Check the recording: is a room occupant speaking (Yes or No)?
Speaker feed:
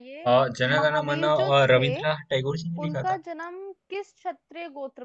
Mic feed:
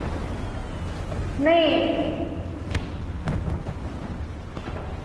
Yes